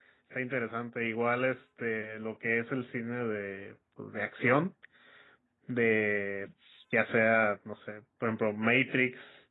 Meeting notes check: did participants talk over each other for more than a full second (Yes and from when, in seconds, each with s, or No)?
No